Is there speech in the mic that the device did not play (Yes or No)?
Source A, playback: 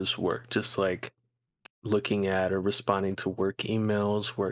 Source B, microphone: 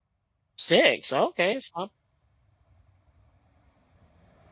Yes